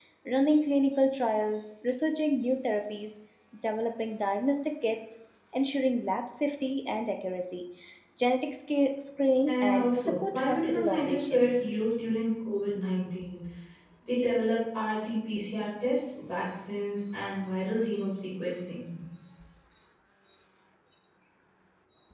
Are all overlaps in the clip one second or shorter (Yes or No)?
No